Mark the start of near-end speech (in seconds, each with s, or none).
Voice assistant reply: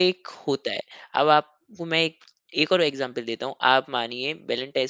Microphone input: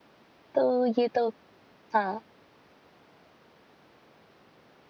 0.5 s